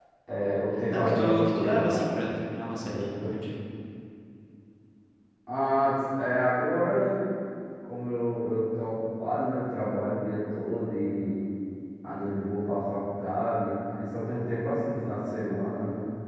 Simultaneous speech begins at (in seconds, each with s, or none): 0.9 s